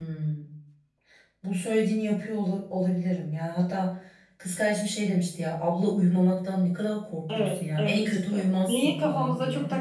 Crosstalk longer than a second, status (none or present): present